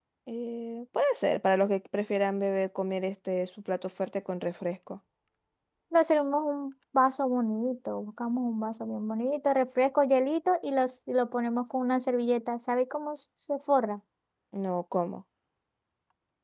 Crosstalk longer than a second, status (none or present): none